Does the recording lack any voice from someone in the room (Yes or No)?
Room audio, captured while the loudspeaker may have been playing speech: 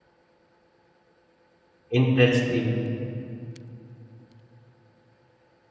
No